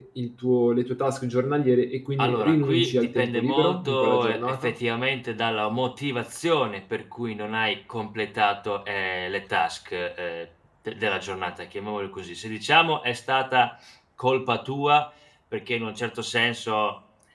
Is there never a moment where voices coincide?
No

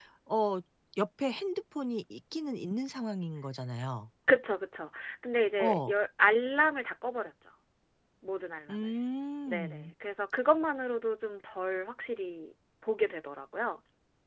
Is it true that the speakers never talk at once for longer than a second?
Yes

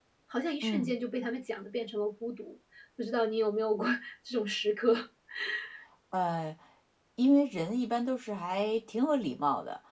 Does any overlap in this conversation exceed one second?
No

